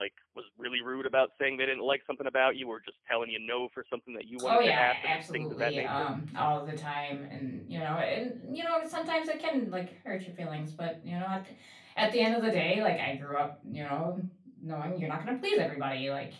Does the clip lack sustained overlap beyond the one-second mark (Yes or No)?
No